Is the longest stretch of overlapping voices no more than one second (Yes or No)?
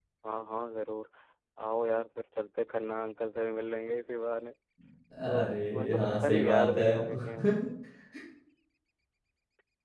No